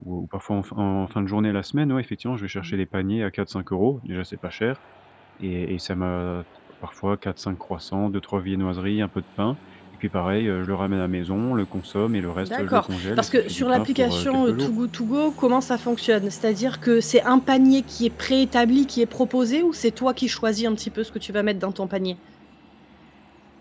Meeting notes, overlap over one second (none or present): present